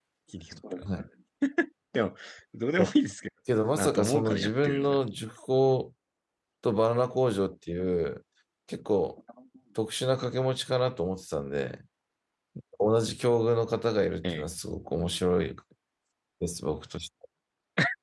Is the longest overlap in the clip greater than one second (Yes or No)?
Yes